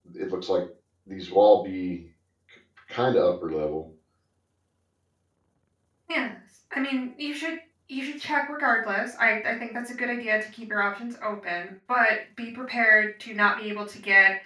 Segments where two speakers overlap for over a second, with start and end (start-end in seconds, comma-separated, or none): none